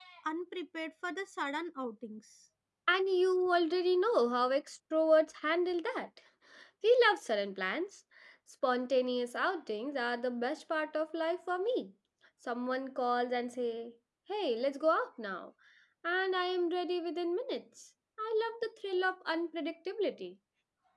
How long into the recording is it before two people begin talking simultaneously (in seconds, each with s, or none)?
none